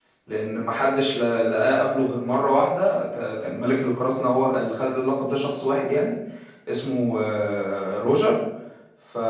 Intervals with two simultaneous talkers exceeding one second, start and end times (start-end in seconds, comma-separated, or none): none